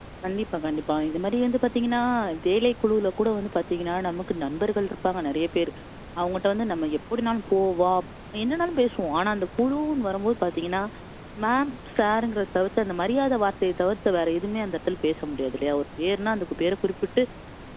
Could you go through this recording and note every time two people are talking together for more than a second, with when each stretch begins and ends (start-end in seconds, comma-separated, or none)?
none